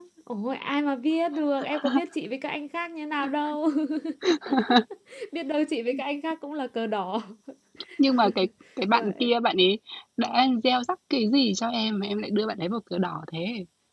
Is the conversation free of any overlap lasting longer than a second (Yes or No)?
Yes